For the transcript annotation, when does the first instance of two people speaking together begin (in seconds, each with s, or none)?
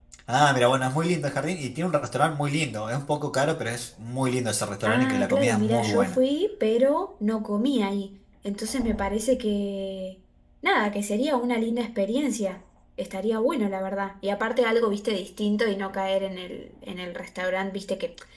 4.8 s